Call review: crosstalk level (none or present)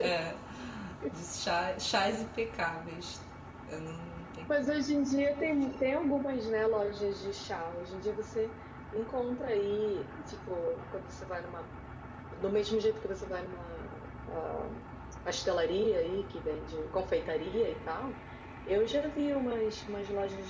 none